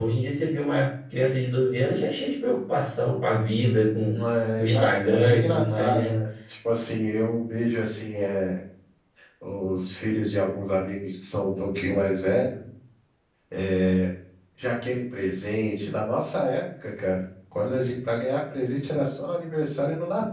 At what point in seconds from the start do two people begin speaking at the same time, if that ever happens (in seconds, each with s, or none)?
4.6 s